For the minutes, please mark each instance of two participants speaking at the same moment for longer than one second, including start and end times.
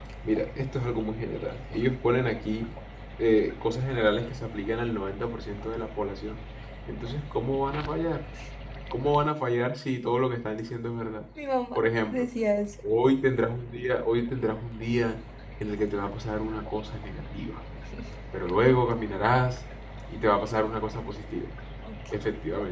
none

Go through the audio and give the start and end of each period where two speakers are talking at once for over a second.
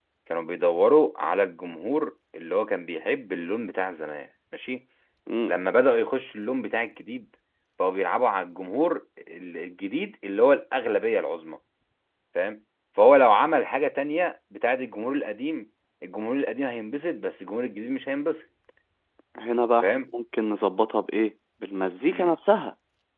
none

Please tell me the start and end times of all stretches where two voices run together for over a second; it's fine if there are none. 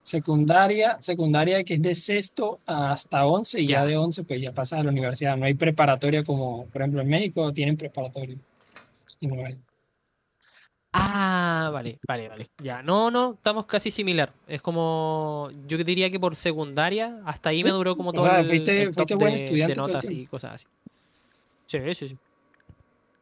18.1-20.2

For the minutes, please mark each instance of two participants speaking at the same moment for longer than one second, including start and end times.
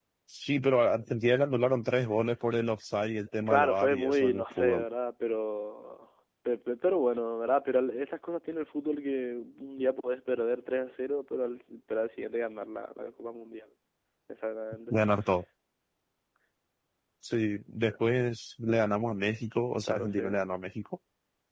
3.5-4.8

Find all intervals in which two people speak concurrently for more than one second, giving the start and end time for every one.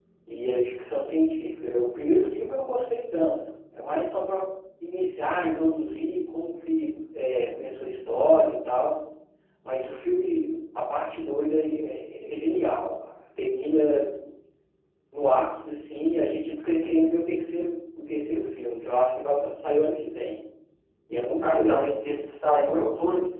none

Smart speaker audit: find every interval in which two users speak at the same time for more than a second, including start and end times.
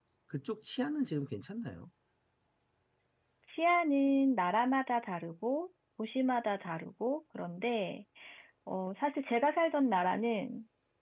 none

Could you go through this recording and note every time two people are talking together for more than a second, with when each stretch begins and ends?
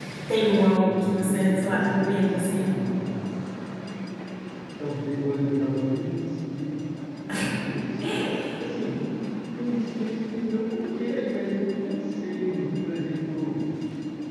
0.8-2.7

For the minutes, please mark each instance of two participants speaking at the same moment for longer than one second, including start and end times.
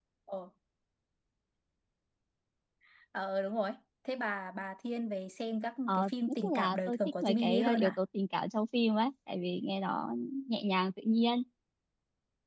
5.9-8.0

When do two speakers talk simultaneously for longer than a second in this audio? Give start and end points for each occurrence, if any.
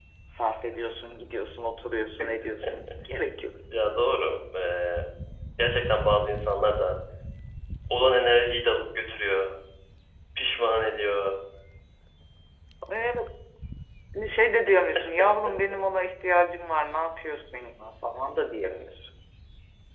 none

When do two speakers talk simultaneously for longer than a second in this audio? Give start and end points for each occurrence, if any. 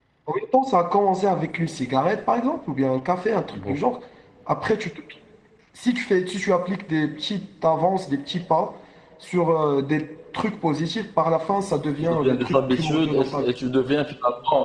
12.0-13.4

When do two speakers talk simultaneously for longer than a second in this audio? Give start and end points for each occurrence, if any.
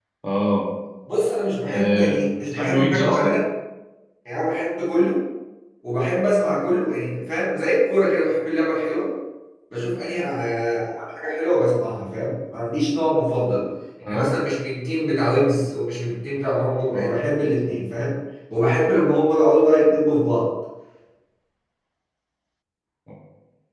1.7-3.4

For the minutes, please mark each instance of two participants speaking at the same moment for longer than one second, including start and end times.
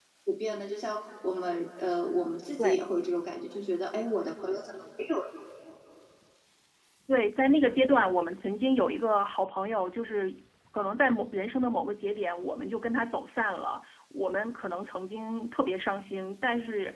none

